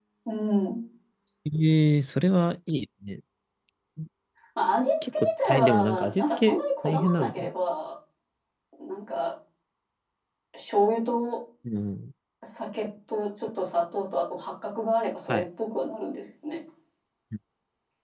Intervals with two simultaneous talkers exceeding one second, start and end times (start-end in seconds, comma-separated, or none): 5.1-7.5